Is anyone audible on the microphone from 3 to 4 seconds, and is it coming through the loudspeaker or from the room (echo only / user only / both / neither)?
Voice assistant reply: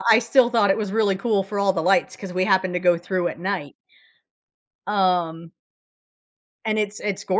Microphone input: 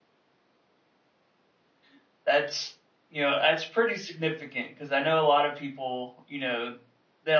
user only